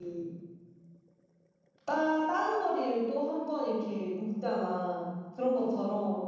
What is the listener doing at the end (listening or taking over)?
listening